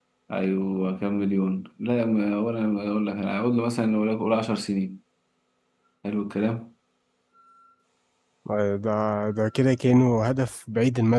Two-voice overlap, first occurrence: none

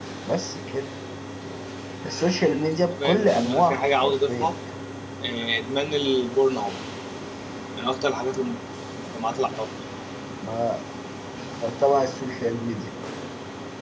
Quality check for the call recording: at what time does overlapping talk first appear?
2.9 s

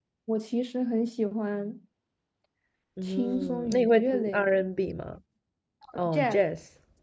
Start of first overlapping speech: 3.0 s

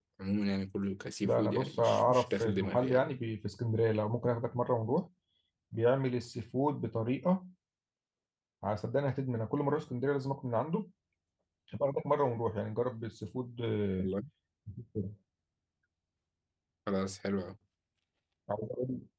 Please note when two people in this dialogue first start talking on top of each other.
1.2 s

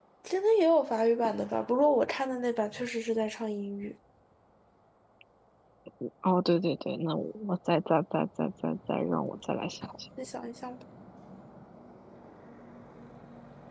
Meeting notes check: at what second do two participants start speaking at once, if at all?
none

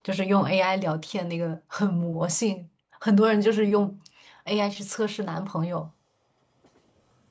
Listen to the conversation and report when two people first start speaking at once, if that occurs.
none

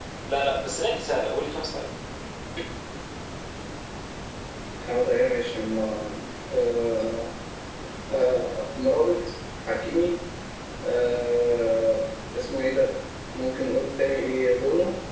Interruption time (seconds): none

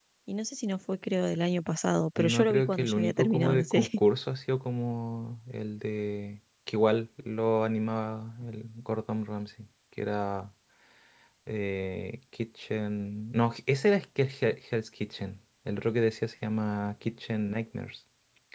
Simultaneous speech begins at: 2.2 s

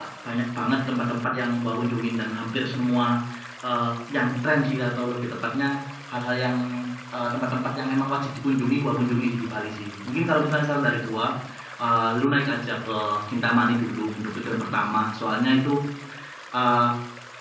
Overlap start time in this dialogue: none

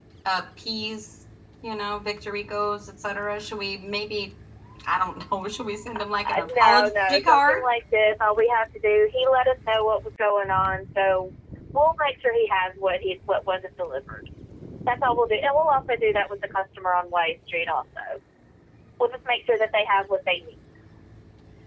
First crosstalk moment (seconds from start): 6.2 s

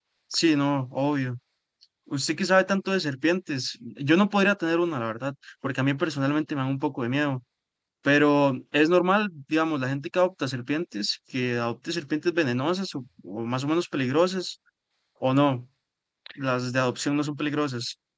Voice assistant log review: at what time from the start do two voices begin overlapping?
none

